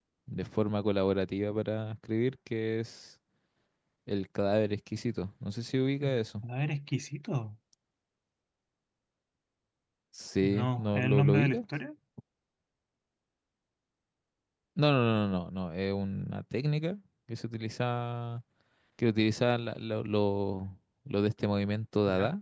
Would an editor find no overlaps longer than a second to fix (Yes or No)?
No